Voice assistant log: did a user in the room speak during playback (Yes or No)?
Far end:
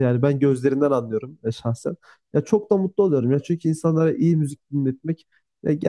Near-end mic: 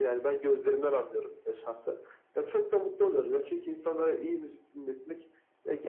No